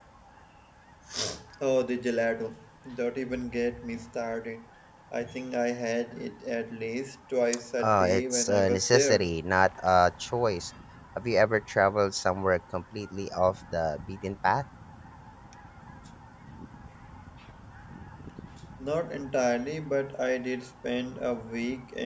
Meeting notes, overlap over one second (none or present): present